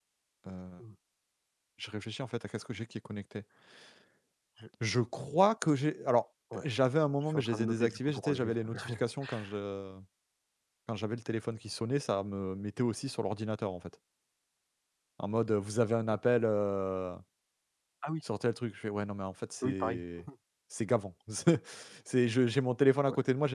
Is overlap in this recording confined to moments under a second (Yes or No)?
No